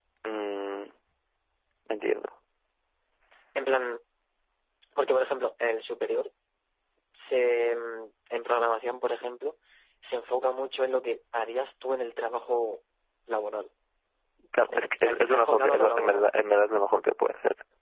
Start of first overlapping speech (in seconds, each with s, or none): 14.6 s